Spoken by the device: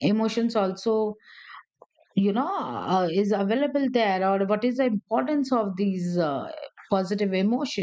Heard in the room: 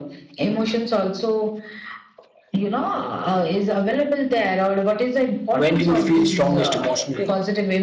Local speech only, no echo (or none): when do you feel strongest emotionally?